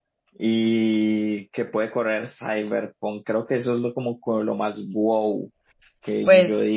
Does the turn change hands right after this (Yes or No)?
Yes